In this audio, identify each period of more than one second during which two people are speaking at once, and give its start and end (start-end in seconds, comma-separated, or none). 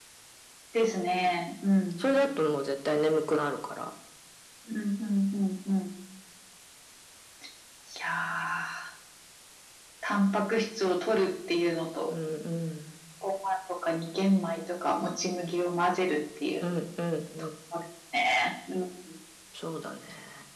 none